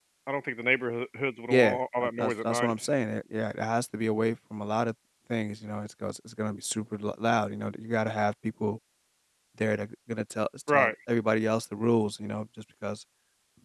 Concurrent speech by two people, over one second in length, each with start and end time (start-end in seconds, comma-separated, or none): 1.5-2.7